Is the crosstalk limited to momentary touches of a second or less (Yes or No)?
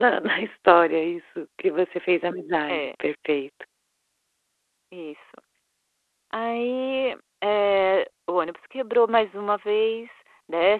Yes